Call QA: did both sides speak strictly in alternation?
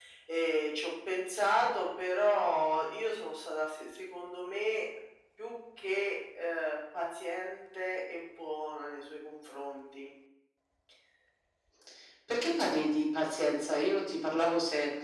Yes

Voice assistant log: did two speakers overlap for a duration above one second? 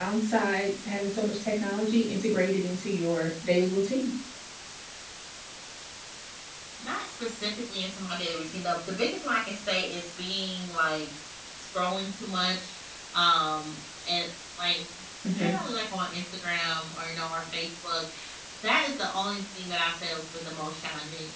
No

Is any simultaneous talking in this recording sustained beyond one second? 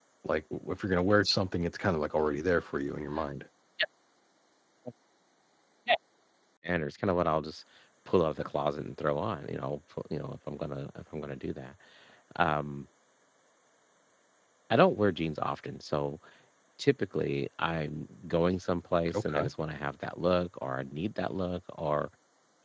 No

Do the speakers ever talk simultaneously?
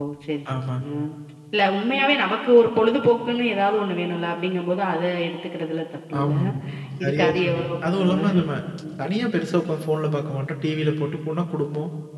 Yes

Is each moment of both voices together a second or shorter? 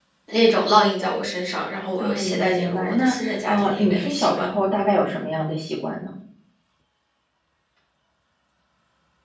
No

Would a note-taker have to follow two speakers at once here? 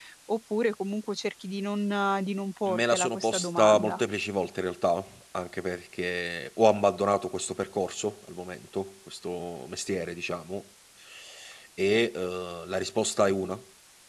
Yes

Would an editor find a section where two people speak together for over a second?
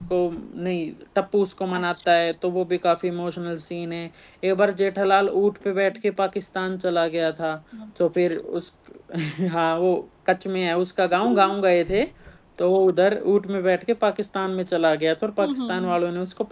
No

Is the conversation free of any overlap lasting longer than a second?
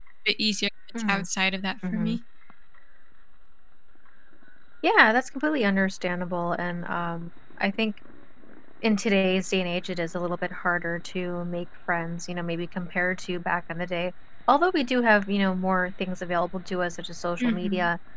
Yes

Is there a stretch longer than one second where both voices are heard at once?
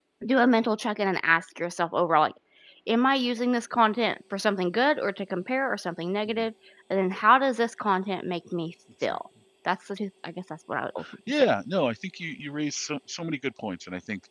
No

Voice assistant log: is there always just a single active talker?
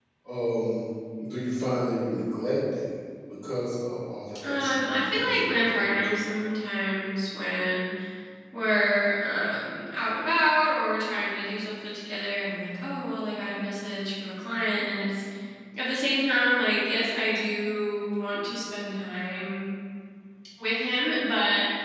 No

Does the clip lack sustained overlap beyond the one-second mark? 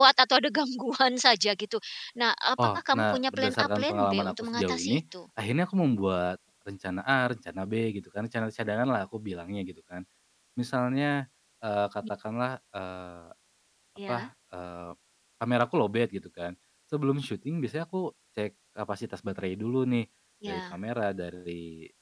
No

